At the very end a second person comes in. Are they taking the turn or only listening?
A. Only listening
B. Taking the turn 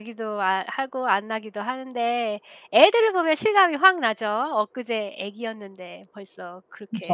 B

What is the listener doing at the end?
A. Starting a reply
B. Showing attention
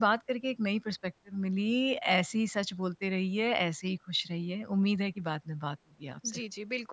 A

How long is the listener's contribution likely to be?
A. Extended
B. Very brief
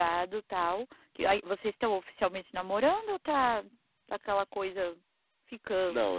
A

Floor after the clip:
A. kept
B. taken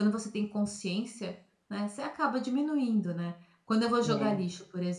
A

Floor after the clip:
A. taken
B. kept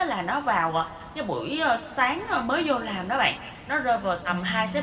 B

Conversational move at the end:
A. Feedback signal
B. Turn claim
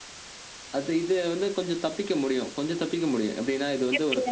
A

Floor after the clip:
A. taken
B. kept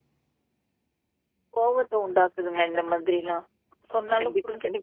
A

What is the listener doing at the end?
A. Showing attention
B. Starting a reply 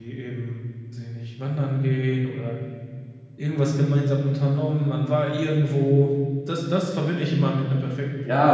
B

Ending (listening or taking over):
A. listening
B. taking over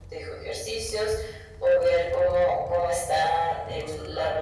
B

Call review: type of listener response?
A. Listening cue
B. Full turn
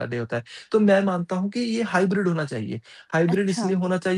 A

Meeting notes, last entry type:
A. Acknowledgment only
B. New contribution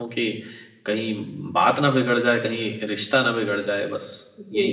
B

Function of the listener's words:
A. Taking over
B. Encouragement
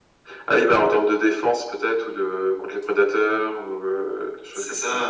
A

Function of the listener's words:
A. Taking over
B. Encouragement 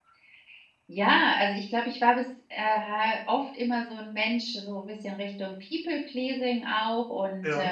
B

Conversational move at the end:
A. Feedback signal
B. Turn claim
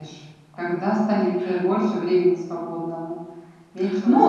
B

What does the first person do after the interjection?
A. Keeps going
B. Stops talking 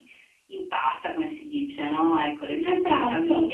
A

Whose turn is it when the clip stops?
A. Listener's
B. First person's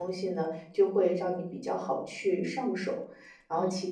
B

